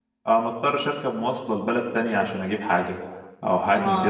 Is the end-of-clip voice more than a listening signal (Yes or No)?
No